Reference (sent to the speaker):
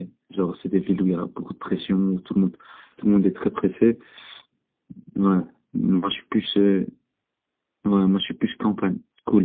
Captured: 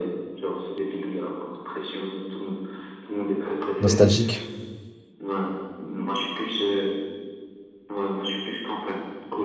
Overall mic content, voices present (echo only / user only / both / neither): both